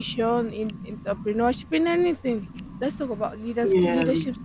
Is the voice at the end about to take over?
No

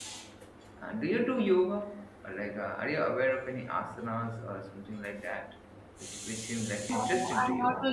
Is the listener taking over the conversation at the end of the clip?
Yes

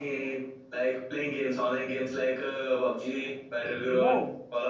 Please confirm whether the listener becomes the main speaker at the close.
No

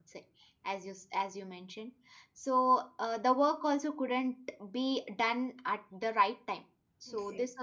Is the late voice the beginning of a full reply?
No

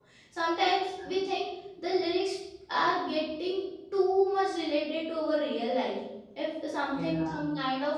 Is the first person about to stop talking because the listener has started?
No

